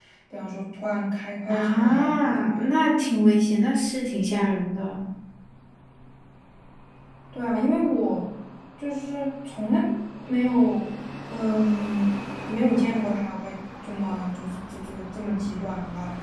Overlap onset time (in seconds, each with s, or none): 1.5 s